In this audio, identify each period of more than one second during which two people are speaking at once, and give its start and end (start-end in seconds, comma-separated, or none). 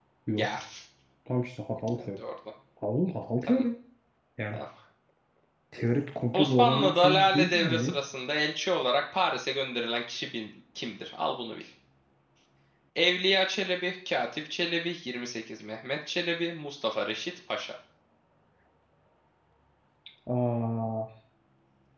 6.3-7.9